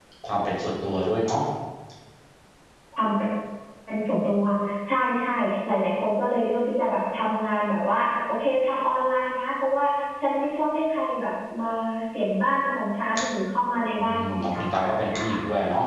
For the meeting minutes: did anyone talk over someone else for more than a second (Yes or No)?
Yes